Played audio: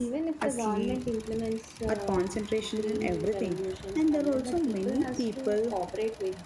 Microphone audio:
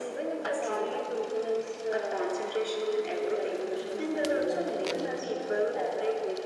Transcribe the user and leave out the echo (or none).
decrease the pollution.